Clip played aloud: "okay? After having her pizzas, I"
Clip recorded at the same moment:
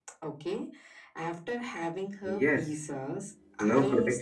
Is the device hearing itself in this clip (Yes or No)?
Yes